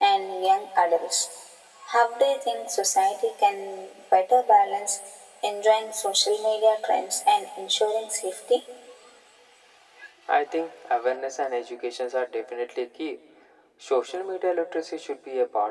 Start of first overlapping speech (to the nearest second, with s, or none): none